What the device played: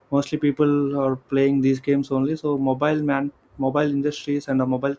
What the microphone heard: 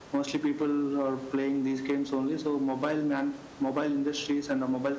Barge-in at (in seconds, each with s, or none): none